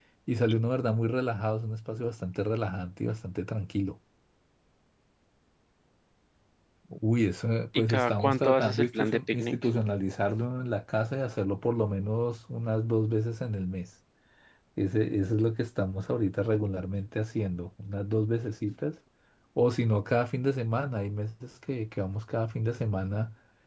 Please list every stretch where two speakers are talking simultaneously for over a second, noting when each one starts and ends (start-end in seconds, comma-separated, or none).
7.9-9.6